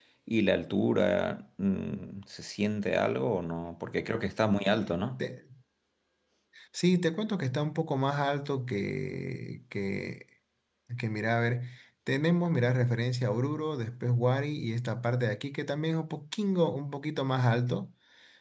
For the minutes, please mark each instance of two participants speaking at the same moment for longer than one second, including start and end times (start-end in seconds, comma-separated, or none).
none